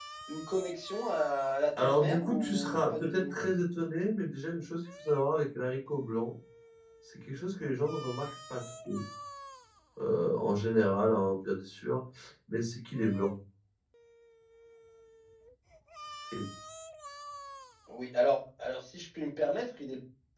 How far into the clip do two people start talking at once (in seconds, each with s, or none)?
1.8 s